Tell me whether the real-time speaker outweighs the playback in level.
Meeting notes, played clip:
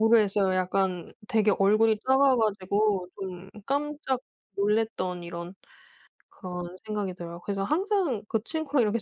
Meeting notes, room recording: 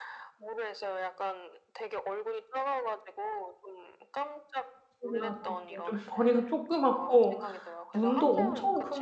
Yes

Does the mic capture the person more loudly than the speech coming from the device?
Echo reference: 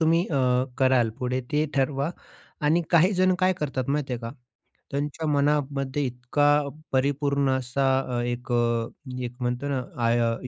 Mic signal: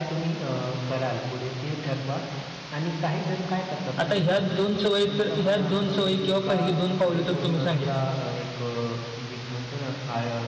Yes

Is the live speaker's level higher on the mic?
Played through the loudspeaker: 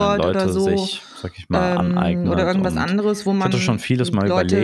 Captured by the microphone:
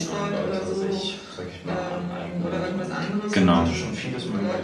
Yes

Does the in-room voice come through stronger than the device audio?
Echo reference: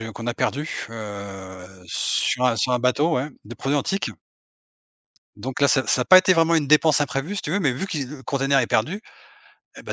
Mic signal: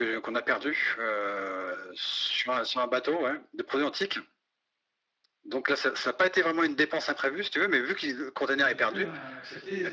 No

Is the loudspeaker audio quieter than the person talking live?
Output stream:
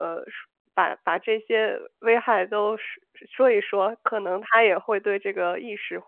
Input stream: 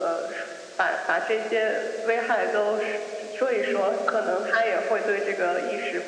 No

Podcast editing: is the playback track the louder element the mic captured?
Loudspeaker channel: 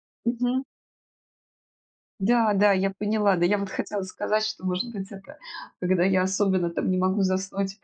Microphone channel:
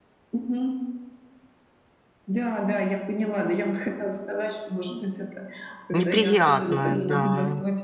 No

